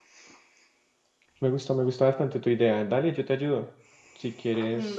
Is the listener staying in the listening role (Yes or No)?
No